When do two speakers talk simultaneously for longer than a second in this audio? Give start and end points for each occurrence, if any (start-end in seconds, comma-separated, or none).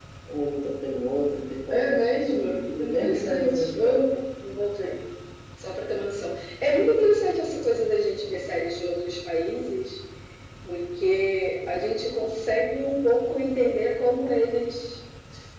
1.7-4.2